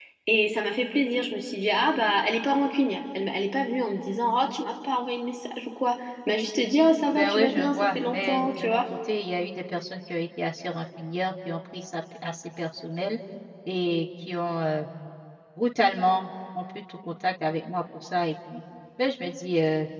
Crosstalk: present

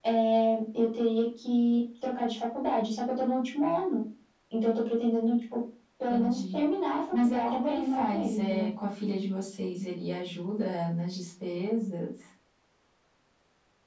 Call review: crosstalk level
present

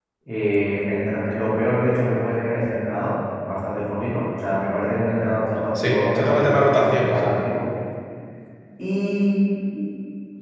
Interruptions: present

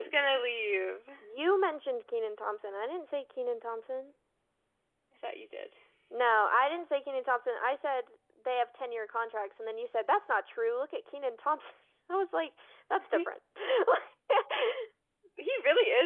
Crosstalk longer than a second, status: none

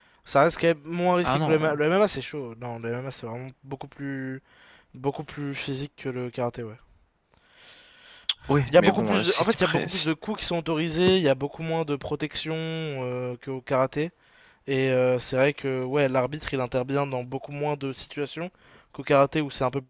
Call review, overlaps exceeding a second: present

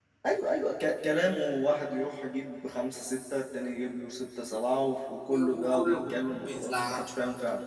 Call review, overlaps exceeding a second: present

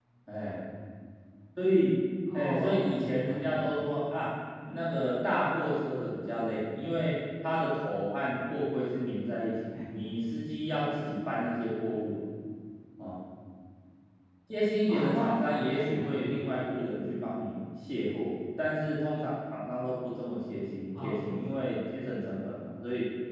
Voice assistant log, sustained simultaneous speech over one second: present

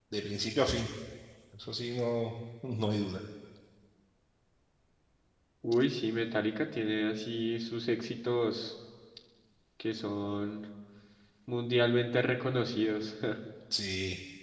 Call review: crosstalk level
none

